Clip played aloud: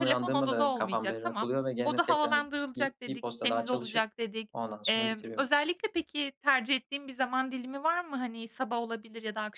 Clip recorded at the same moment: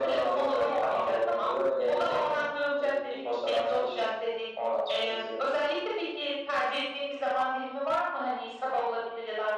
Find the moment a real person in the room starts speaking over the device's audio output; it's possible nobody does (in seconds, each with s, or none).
none